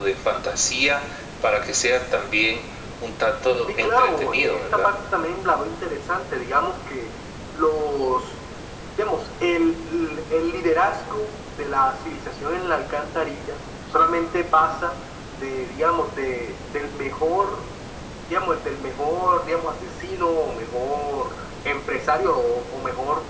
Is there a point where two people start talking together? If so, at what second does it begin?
3.7 s

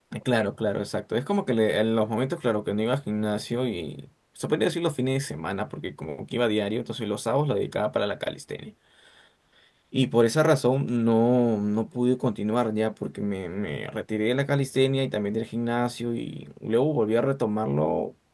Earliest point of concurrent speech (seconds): none

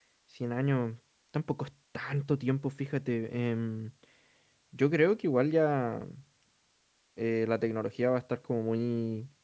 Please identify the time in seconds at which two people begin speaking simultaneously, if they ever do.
none

